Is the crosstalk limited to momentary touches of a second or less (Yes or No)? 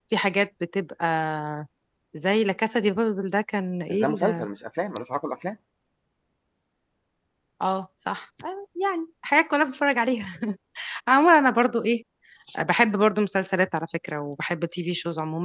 Yes